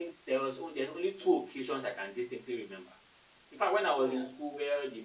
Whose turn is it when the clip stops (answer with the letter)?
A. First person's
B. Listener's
A